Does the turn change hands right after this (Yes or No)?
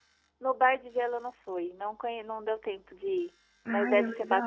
Yes